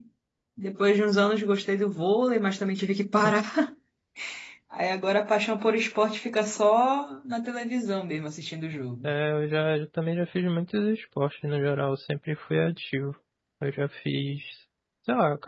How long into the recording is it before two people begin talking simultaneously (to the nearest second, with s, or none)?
none